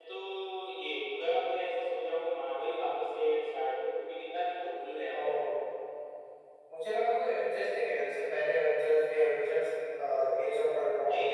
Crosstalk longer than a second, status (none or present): none